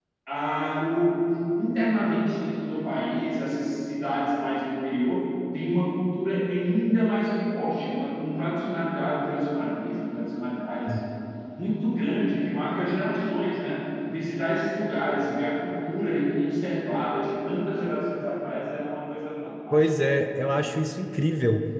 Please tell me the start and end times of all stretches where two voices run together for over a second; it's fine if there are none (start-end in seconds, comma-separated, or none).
none